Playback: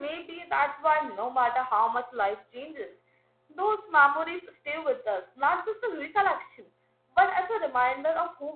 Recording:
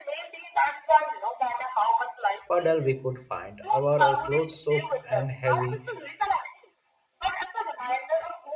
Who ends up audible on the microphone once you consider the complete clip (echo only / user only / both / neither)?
both